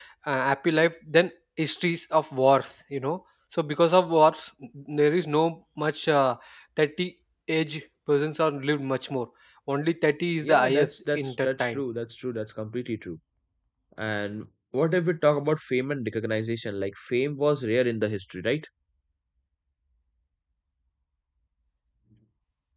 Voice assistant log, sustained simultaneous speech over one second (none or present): present